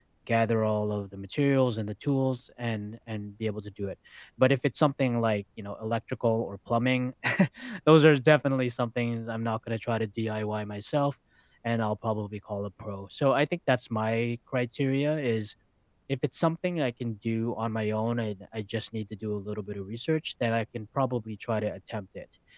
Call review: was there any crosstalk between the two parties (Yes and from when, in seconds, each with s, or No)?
No